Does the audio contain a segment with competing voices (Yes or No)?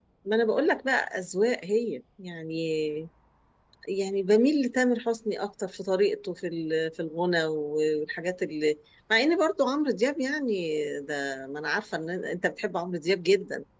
No